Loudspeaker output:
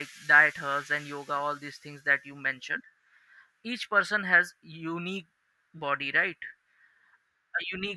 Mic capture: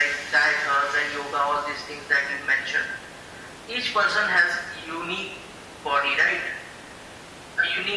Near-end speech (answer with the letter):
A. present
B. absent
B